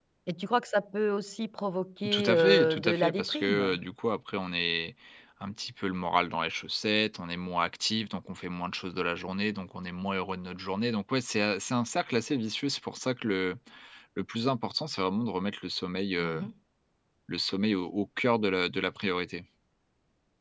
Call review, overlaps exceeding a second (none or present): present